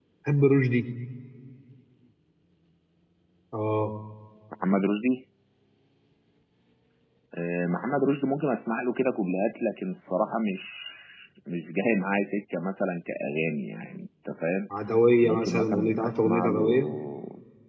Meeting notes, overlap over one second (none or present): present